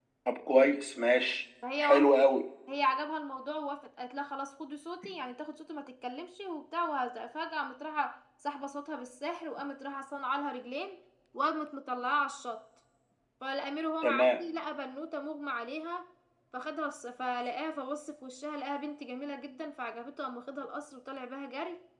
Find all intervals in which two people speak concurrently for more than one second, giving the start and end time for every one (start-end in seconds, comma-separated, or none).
none